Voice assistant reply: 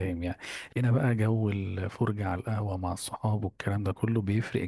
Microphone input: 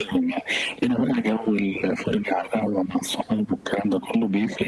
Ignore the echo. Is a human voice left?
No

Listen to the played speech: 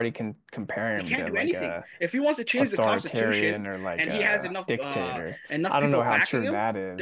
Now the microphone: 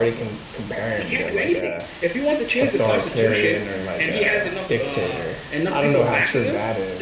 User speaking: No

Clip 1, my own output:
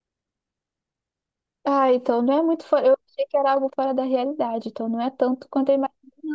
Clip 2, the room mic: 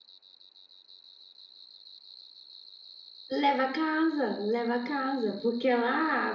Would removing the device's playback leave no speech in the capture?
No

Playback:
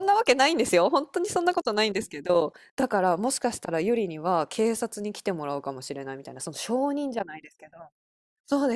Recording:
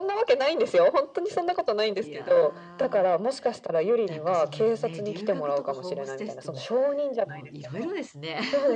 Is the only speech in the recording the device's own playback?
No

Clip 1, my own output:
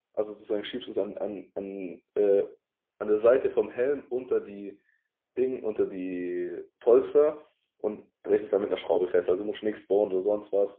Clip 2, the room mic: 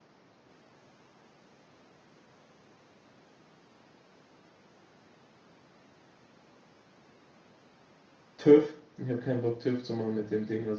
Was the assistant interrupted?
Yes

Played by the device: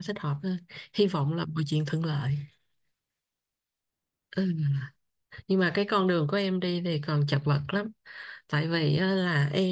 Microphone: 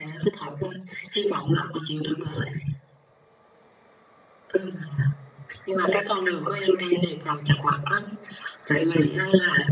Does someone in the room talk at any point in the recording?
No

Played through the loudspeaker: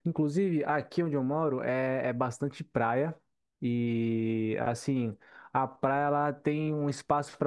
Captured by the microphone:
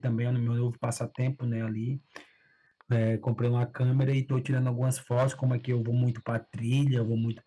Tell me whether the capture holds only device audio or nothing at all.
No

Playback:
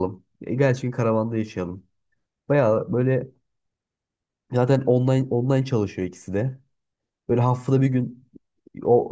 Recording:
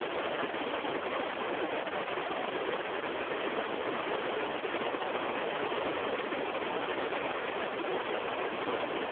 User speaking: No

